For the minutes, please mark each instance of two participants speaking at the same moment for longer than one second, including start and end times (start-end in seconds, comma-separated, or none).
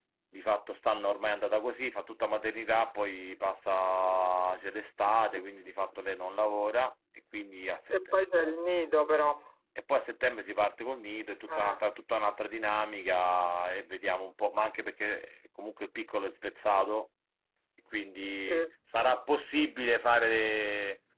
none